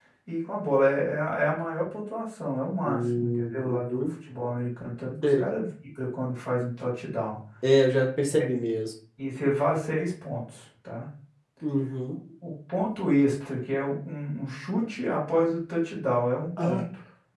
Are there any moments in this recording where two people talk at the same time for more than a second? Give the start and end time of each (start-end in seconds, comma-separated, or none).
2.8-4.1